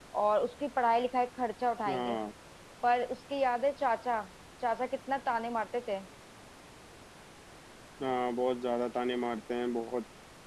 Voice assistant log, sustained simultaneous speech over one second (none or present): none